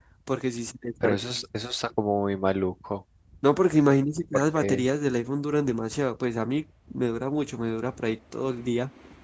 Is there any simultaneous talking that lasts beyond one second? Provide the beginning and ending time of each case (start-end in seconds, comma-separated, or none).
none